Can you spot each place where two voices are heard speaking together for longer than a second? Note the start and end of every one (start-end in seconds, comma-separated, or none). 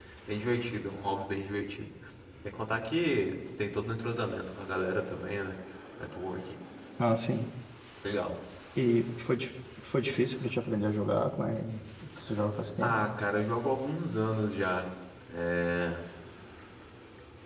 none